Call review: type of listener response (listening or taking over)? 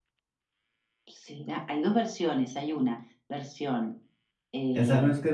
taking over